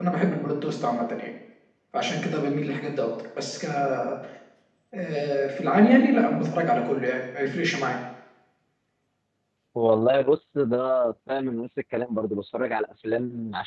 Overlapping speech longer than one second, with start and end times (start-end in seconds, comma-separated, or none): none